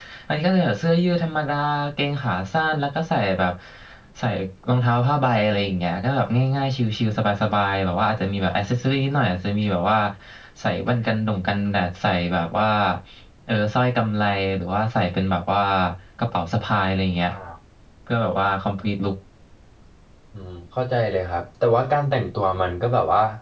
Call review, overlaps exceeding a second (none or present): none